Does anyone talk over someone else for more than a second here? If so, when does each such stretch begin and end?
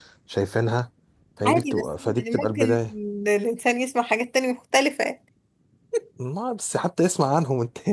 1.4-2.8

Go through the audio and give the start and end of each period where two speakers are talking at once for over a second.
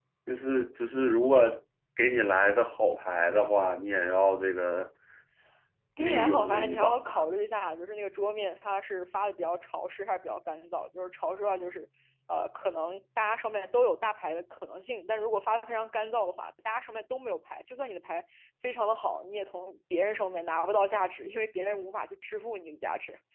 6.0-7.2

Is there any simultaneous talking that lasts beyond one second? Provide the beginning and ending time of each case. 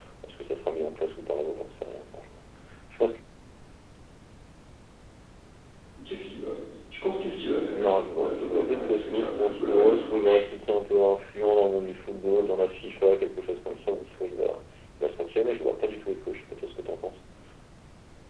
7.7-10.4

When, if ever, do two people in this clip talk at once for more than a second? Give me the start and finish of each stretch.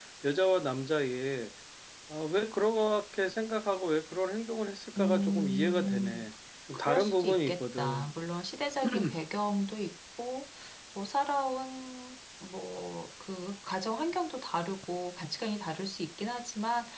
5.0-6.2, 6.9-8.1

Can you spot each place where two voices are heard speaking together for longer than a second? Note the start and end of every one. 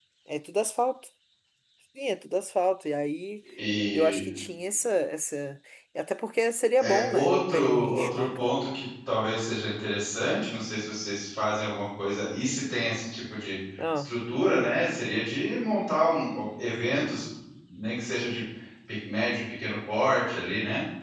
6.8-8.6

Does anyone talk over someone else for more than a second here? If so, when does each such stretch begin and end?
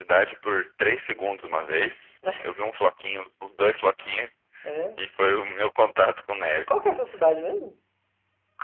none

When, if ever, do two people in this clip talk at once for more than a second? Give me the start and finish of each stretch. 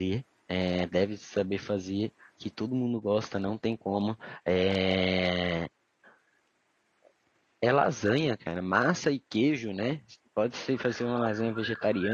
none

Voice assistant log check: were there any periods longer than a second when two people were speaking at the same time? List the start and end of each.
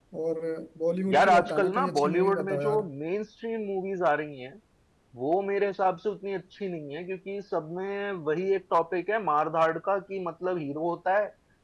1.1-2.8

